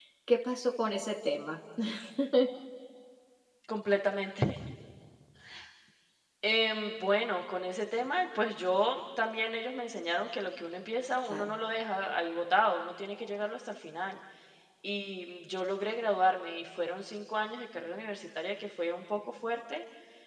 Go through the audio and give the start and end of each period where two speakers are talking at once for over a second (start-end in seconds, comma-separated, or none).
none